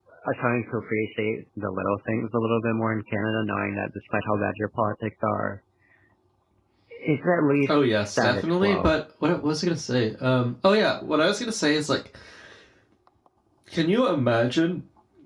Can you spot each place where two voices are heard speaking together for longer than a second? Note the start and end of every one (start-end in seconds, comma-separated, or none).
7.7-8.9